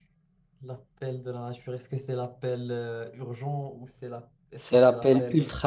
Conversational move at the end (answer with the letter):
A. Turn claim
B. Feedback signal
A